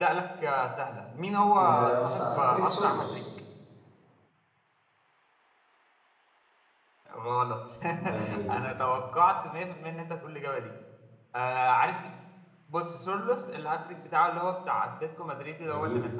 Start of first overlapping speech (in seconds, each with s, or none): 1.6 s